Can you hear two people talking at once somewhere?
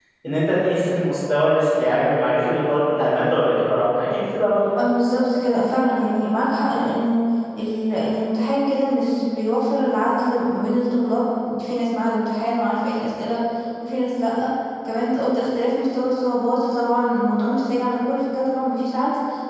No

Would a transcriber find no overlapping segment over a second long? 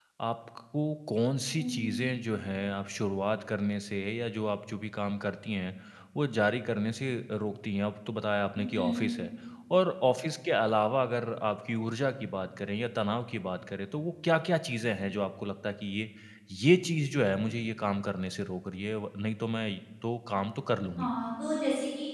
Yes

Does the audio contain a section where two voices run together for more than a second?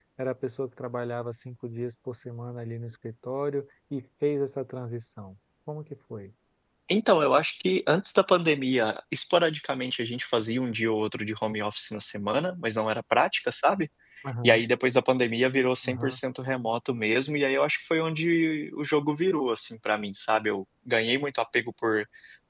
No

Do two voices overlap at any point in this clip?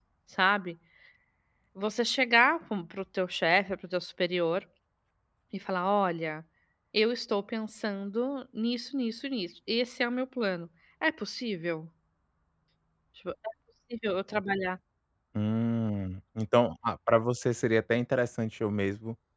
No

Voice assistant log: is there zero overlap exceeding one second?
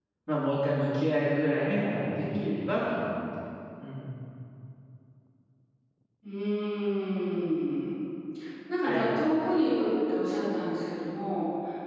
Yes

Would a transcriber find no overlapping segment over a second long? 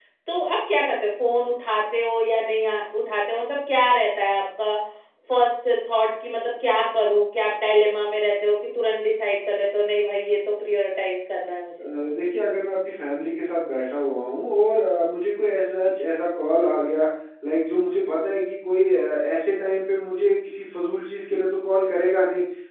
Yes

